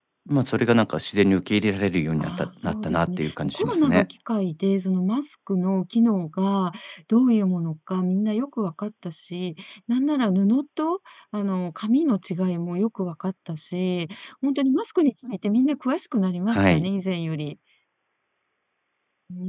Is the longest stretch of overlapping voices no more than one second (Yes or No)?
No